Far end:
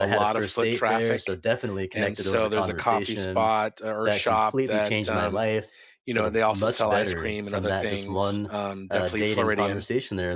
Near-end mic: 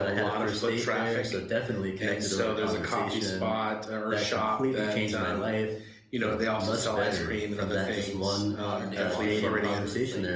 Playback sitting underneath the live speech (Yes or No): No